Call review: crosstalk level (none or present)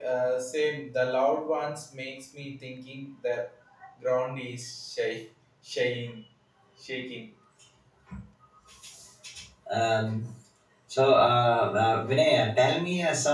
none